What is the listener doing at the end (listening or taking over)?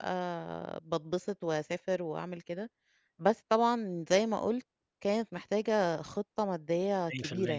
taking over